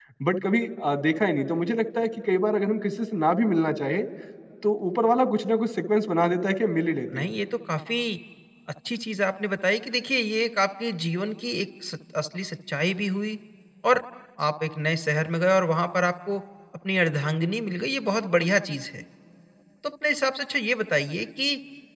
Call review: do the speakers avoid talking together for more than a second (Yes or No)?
Yes